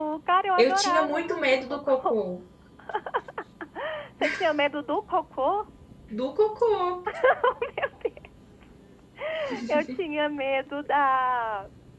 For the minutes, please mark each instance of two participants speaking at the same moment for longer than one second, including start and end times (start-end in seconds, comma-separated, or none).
0.6-2.2